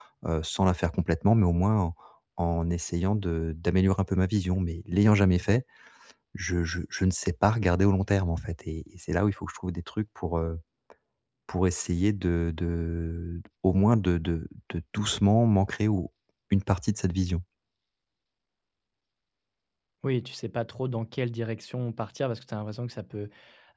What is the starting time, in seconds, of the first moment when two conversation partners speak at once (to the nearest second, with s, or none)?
none